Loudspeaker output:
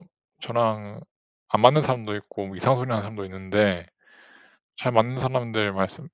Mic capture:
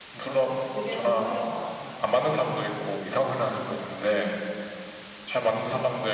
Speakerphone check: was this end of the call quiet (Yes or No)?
No